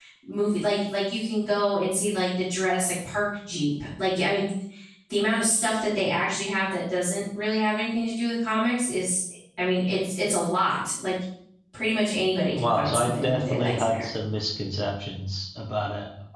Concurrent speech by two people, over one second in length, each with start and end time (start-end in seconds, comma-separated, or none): 12.6-14.1